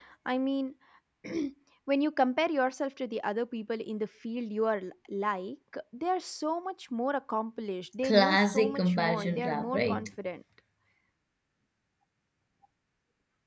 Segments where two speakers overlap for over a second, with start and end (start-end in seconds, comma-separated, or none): 8.0-10.1